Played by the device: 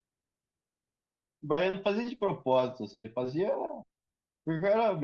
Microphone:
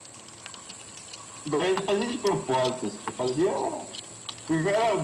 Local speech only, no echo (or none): none